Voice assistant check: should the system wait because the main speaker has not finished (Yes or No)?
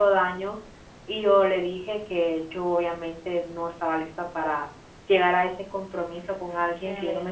Yes